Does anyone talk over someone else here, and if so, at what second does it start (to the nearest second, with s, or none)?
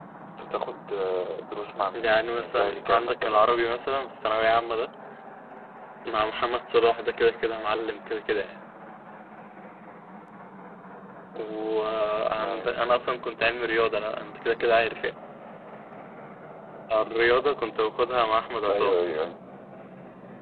2 s